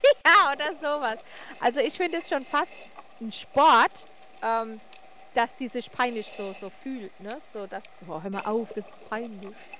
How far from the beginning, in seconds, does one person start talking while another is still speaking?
none

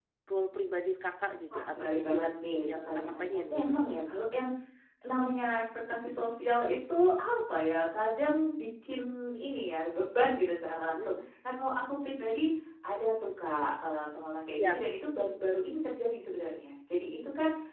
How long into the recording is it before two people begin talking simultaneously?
1.5 s

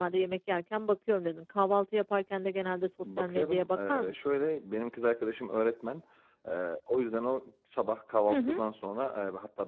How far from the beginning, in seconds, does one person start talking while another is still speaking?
3.2 s

